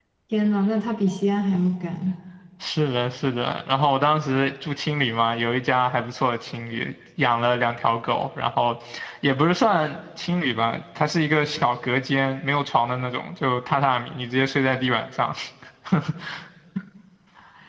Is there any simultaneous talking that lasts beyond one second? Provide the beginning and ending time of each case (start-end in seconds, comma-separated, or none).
none